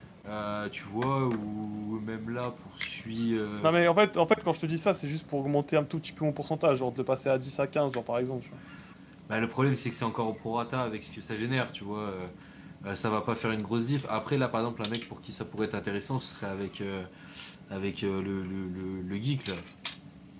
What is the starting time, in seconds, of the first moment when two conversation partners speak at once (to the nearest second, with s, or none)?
none